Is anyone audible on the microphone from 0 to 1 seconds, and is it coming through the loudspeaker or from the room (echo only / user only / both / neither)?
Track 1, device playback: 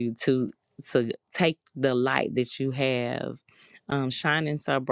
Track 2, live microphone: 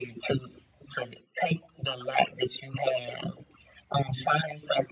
echo only